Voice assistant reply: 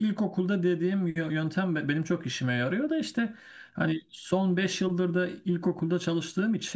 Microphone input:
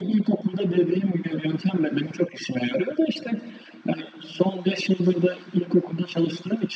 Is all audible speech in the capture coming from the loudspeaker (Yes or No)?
Yes